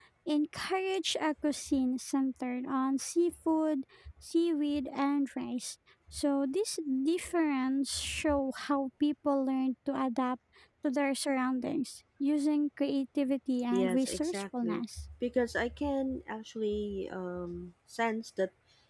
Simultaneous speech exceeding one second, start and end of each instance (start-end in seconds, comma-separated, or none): 13.7-15.0